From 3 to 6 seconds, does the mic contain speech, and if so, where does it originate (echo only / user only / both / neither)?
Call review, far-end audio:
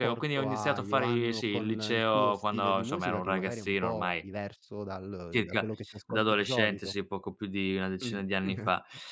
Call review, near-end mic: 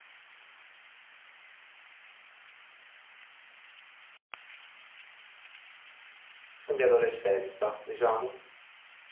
neither